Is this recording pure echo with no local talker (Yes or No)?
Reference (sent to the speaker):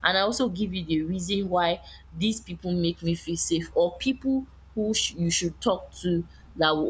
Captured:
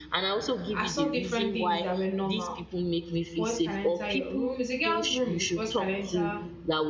No